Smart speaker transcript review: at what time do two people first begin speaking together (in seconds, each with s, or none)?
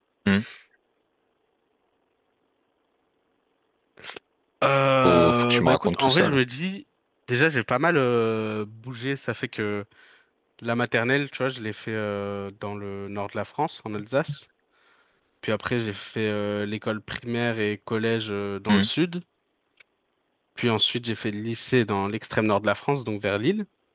5.0 s